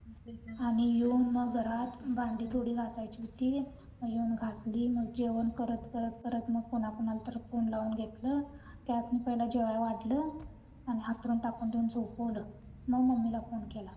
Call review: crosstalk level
present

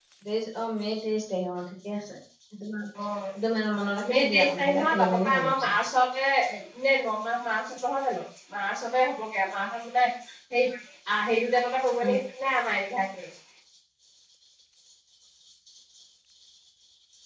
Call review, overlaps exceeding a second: present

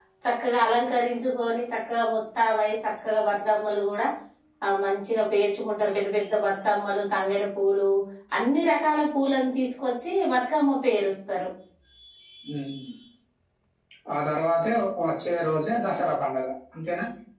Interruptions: none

